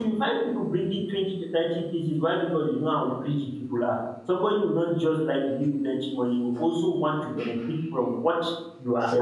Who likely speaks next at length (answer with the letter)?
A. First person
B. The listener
A